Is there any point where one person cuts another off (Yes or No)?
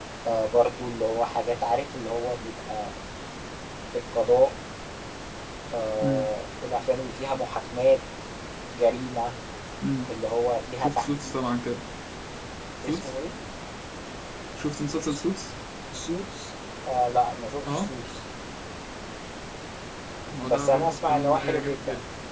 Yes